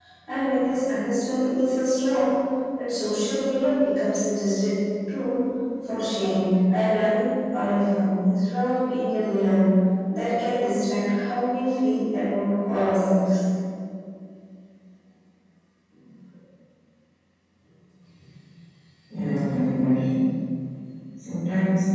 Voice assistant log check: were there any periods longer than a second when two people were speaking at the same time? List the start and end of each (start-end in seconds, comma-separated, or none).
none